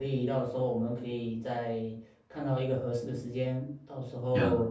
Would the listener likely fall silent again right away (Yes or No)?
Yes